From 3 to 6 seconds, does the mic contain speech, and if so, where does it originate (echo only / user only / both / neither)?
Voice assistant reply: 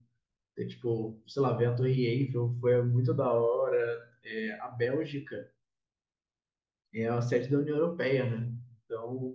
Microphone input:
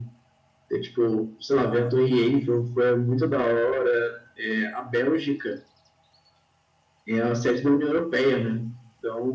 echo only